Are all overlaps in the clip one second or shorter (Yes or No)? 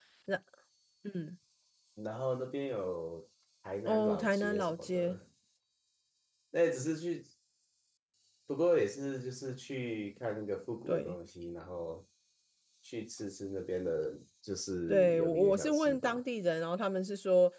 No